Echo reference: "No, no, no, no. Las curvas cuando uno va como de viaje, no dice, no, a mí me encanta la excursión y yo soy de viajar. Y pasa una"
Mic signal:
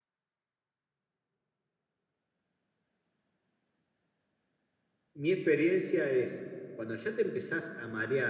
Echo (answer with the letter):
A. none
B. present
A